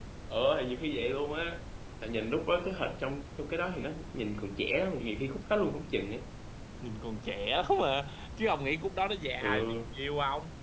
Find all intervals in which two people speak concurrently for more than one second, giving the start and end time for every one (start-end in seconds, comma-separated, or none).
none